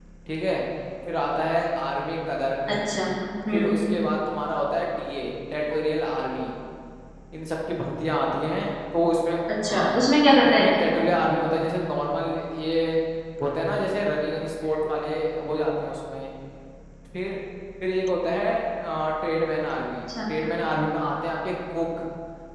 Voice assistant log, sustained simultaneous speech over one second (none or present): none